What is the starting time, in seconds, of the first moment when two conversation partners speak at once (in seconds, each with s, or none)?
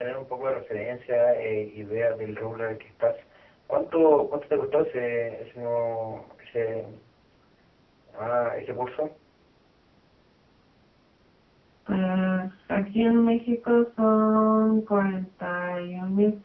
none